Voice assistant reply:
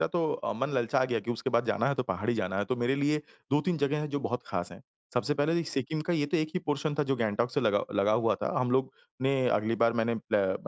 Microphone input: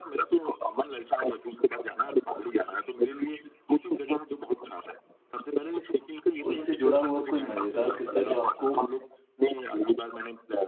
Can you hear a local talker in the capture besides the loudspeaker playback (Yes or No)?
Yes